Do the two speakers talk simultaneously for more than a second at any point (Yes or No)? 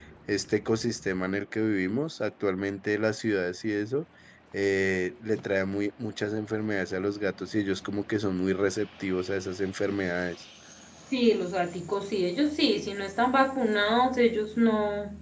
No